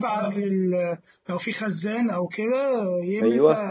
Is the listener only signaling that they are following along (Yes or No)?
Yes